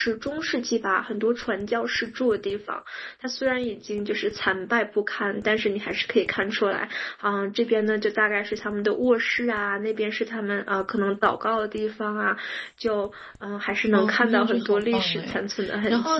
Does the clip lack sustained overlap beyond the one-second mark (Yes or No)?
No